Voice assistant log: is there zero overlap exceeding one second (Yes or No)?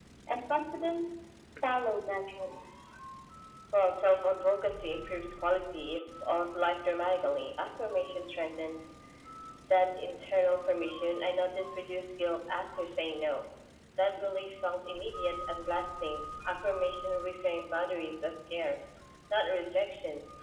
Yes